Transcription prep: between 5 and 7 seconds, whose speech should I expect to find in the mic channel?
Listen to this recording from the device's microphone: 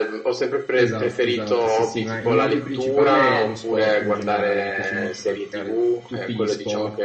both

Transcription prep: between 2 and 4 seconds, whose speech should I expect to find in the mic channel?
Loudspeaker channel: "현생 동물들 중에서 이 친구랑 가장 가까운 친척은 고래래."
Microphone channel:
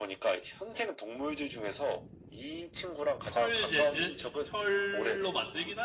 both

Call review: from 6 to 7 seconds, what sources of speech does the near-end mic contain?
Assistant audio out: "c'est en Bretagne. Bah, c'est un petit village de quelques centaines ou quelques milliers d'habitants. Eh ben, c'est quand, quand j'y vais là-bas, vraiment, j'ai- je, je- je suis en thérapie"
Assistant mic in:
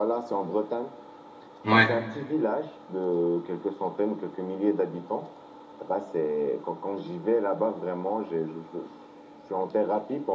echo only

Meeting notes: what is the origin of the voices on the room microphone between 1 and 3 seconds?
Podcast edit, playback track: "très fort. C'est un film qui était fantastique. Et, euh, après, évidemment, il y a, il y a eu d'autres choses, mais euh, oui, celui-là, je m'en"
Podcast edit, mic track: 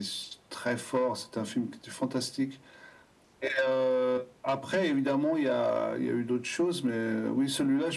echo only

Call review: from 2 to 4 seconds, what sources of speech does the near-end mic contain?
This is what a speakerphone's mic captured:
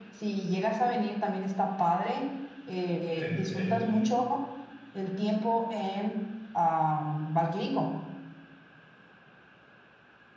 both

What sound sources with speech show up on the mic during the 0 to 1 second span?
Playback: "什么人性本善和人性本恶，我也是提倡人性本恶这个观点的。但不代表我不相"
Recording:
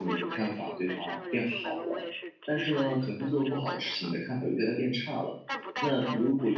both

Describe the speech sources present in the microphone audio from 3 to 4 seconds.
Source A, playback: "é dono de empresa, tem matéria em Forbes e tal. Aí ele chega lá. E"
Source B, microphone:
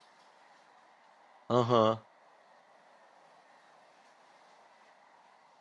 neither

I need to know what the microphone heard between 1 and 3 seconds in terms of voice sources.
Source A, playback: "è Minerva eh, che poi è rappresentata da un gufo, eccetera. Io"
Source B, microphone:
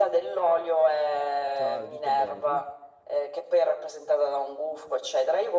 both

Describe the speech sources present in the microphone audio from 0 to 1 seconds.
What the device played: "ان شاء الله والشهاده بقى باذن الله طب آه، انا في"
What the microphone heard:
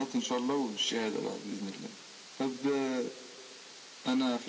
echo only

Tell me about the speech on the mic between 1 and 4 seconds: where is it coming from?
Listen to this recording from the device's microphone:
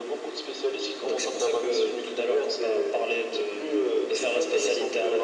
echo only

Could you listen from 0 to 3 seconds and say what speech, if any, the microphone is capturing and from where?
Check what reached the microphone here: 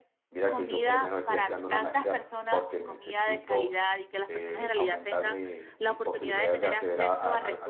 both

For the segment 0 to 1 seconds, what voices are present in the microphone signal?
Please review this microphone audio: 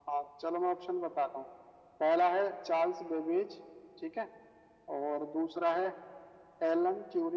echo only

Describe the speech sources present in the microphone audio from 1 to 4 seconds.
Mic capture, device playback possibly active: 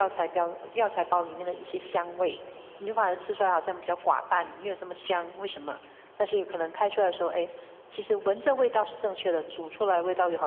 echo only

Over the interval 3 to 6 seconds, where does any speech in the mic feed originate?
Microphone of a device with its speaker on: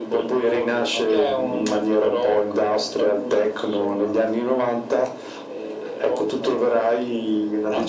echo only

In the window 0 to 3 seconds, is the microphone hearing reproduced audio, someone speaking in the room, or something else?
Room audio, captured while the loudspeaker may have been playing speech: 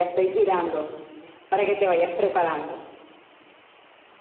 echo only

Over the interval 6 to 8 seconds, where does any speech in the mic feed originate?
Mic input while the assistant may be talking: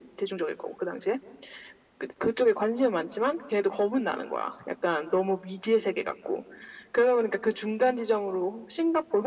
echo only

